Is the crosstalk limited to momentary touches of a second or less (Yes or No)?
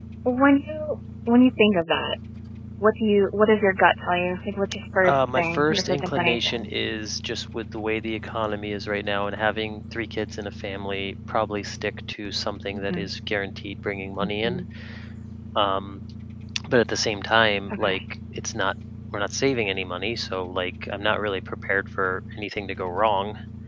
No